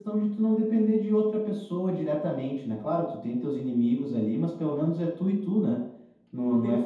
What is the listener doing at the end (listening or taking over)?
taking over